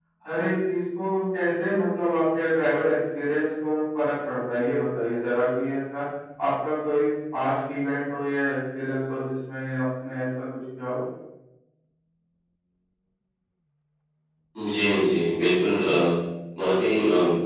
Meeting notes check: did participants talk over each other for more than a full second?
No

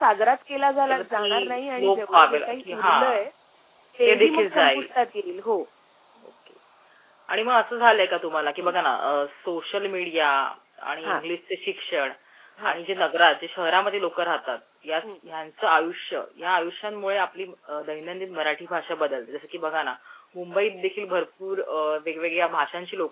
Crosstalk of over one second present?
Yes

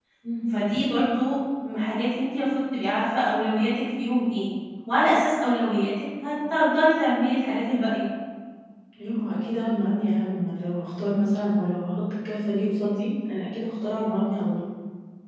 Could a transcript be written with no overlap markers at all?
Yes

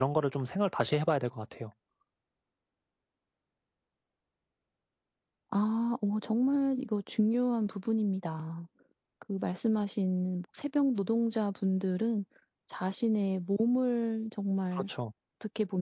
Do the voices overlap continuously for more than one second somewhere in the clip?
No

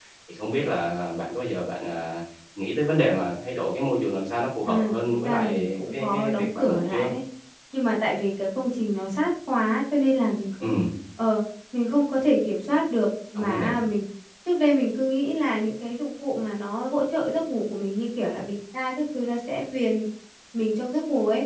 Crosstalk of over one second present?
Yes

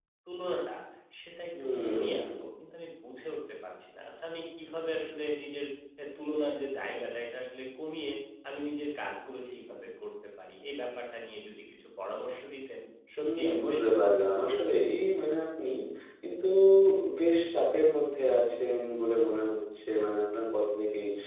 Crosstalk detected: Yes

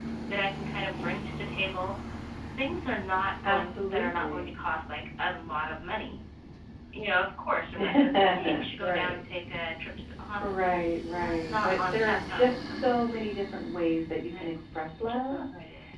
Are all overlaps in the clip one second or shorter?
No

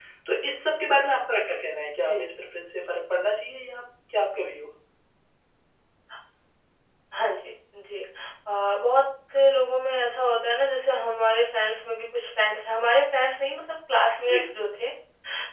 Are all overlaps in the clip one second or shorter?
Yes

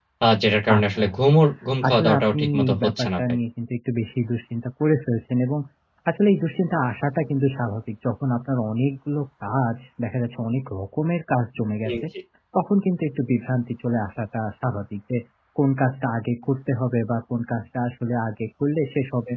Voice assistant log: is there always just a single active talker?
No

